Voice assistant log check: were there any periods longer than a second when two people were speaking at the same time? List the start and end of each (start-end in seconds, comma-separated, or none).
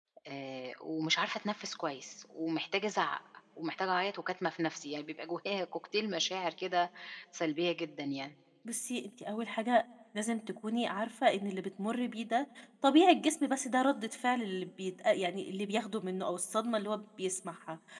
none